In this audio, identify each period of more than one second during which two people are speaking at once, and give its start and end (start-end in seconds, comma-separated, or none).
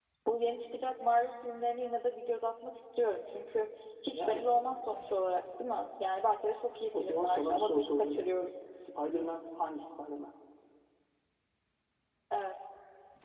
7.0-8.2